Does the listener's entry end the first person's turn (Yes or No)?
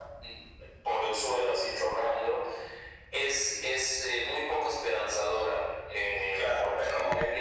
Yes